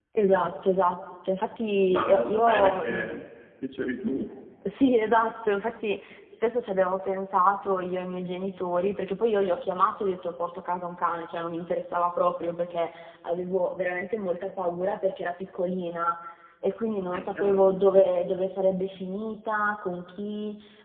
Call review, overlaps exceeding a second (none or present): present